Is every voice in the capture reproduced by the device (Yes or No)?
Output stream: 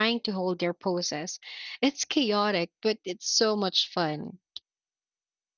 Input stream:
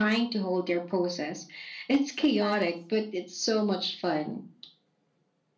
No